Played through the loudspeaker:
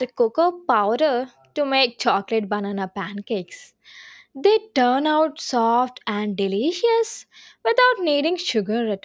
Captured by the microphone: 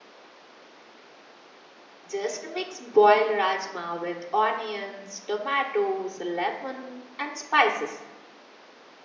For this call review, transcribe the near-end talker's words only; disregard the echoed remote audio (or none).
Just mix boiled rajma with onions, tomatoes, lemon, and spices.